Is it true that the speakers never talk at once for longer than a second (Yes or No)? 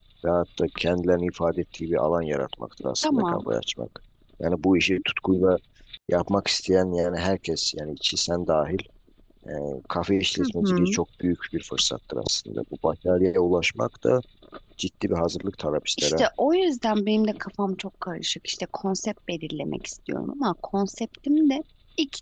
Yes